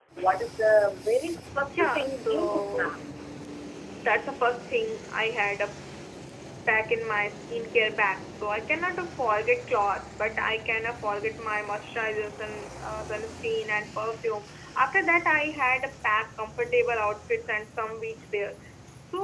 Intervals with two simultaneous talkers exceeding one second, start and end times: 1.7-3.0

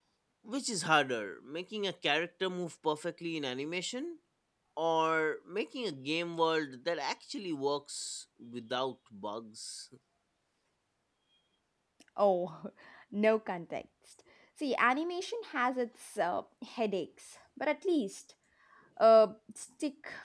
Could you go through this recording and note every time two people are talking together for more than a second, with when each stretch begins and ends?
none

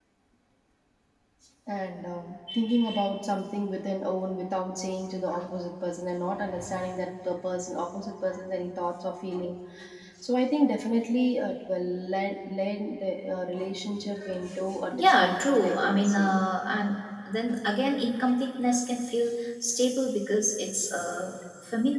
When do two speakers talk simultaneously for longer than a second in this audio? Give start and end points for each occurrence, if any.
14.9-16.3

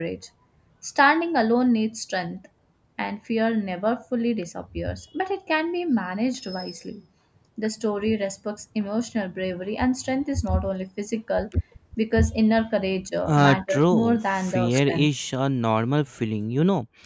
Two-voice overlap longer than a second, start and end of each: 13.3-15.1

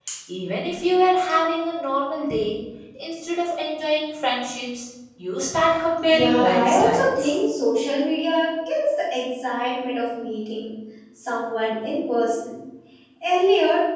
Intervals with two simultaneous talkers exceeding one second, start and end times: 6.1-7.3

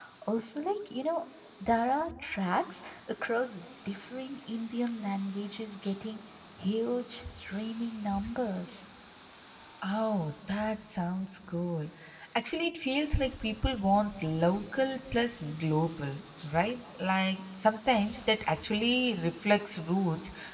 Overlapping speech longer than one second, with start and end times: none

